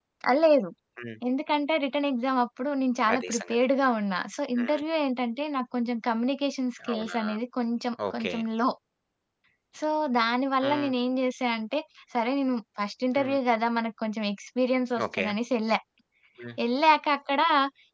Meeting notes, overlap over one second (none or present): none